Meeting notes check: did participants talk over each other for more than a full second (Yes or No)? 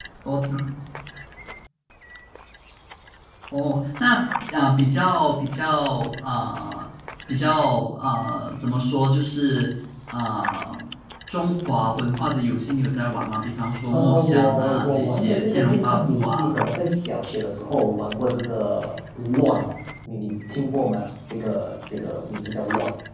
Yes